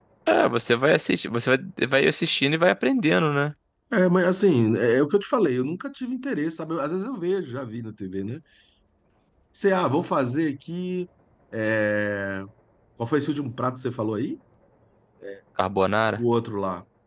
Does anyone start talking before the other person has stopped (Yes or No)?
No